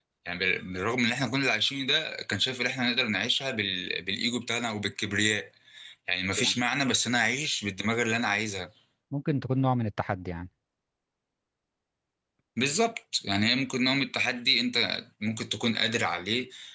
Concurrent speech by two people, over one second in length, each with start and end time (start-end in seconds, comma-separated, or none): none